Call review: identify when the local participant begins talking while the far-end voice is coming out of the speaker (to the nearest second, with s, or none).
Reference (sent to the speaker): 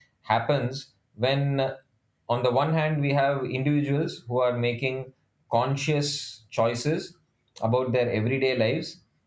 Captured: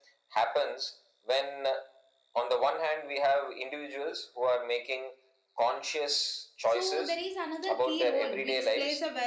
7 s